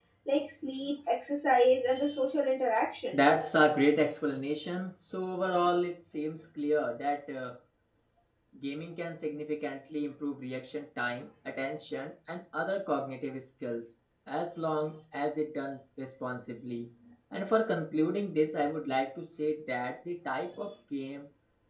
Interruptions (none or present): none